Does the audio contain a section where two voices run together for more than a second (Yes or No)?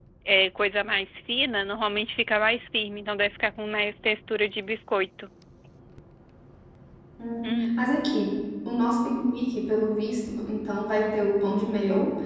No